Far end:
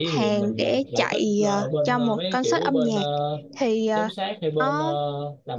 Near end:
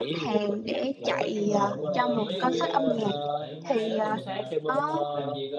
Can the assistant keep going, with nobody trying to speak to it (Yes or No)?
No